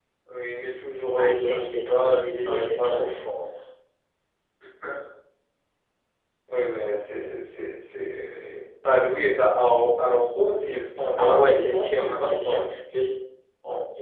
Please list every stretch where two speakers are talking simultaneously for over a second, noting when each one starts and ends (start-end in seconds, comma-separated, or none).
1.2-3.1, 11.2-12.6